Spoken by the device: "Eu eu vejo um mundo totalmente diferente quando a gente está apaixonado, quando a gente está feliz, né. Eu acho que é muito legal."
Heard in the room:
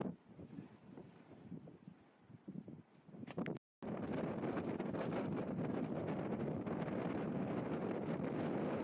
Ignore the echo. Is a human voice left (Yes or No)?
No